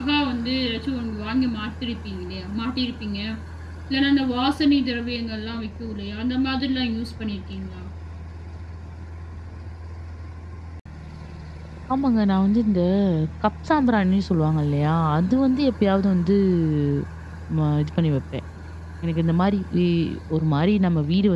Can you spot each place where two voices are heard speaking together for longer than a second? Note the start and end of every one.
none

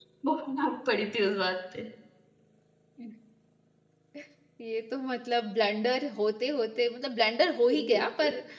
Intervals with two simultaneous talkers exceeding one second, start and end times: none

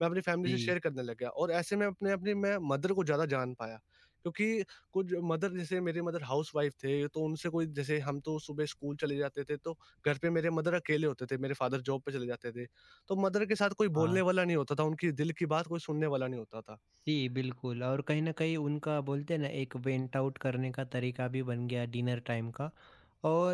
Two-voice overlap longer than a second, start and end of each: none

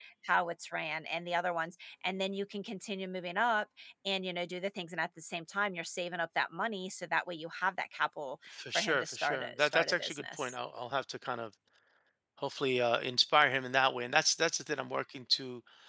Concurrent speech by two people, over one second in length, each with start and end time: 8.5-10.6

